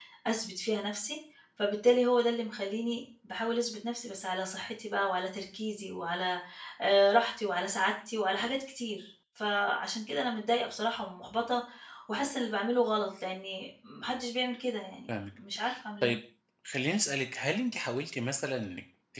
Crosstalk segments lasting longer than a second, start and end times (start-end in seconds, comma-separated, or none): none